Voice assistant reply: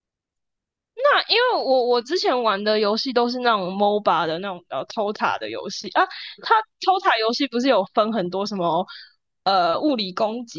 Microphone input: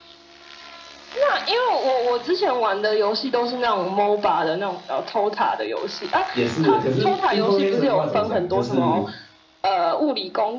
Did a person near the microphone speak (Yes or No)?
Yes